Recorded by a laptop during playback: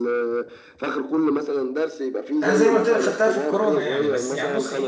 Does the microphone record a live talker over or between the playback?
Yes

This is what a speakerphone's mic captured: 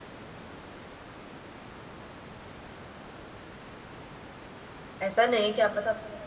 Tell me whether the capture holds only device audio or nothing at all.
No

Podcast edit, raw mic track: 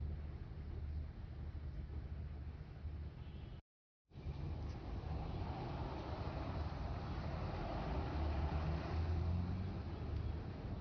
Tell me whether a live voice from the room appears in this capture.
No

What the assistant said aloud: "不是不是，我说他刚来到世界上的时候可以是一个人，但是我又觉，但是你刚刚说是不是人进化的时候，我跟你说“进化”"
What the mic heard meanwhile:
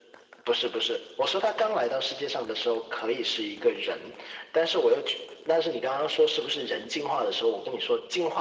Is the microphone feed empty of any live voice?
Yes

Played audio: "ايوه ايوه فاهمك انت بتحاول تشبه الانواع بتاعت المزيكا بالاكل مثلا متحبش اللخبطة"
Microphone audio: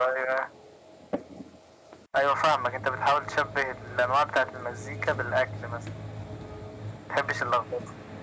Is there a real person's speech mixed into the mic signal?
No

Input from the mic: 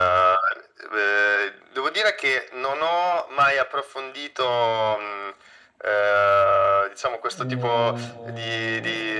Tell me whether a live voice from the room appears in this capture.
Yes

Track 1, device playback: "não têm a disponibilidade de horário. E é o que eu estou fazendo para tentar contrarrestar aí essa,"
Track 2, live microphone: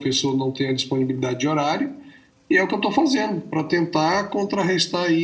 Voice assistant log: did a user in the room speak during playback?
No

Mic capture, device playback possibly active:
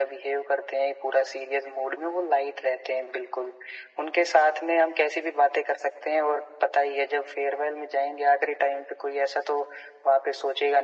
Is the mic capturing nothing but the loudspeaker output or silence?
Yes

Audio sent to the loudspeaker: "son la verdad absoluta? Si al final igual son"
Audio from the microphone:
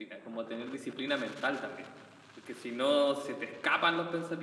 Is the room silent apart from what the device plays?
No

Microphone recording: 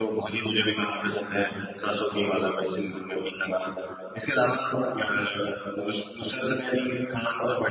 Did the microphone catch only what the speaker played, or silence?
No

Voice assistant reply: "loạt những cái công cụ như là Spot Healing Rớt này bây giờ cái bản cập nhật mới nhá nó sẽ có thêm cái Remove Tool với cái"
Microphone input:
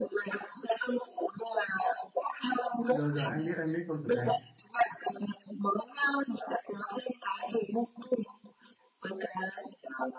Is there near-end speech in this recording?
Yes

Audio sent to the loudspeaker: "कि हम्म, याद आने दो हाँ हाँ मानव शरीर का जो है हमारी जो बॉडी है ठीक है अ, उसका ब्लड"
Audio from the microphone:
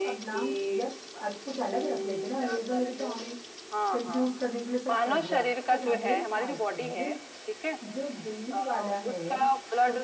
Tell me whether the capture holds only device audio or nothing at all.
No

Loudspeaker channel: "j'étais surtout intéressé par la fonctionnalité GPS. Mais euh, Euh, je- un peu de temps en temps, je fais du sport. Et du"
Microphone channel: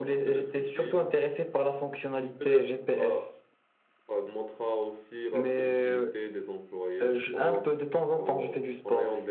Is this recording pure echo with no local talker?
No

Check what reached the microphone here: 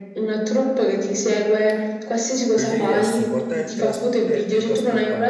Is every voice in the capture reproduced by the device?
No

